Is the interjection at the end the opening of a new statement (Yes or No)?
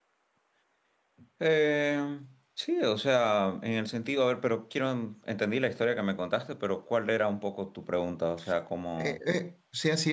Yes